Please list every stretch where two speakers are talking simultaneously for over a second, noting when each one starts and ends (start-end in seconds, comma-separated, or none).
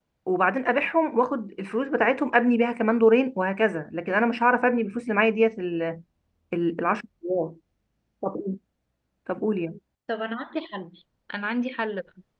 none